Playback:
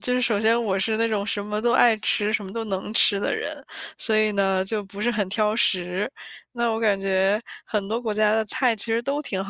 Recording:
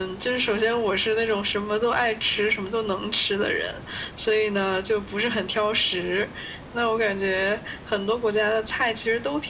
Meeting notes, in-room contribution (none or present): none